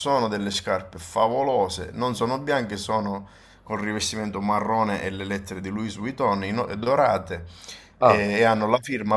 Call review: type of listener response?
listening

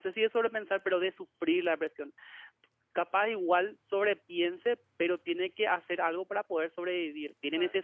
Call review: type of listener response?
listening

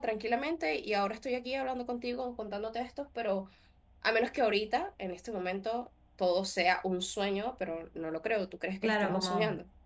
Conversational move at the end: taking over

